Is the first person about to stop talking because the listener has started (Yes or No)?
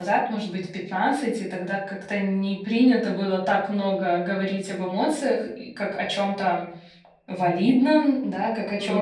No